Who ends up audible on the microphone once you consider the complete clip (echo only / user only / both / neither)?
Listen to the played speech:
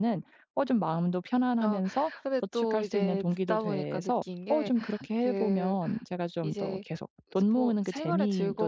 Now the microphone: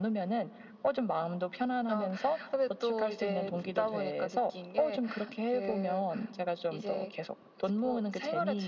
echo only